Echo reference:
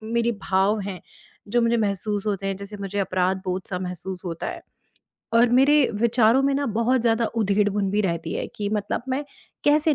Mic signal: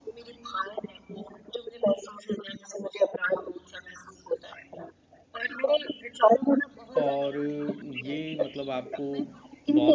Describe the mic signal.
both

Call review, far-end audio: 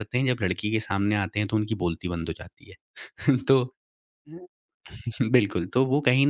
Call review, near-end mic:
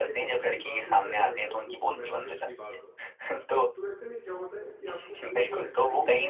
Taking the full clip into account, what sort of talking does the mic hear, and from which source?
both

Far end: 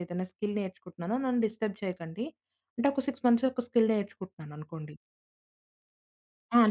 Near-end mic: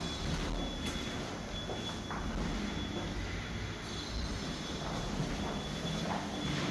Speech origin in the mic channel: neither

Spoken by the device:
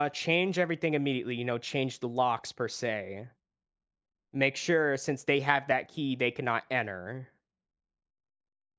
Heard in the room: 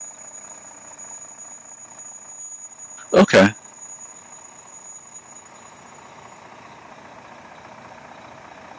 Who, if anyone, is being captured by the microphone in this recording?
user only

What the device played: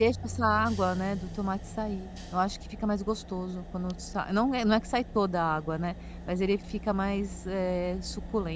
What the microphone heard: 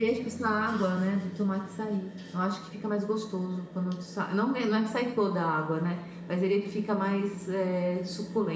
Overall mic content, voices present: echo only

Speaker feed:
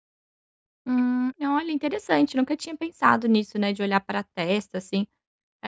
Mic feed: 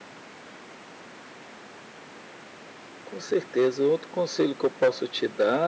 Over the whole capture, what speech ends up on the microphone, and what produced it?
user only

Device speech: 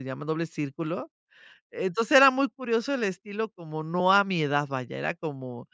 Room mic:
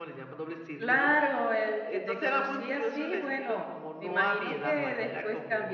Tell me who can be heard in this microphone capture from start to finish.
both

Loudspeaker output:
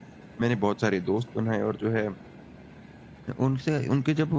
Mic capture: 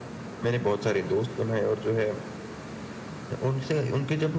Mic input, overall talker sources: echo only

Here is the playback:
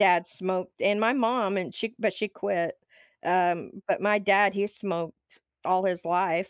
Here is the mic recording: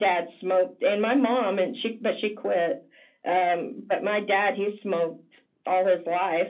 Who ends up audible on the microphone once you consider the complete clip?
echo only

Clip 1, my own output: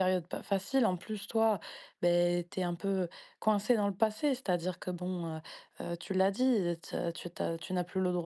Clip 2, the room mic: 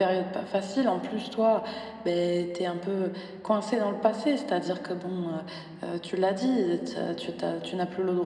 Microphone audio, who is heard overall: echo only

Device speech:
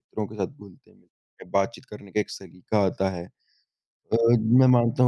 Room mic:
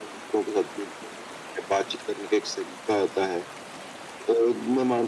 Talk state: echo only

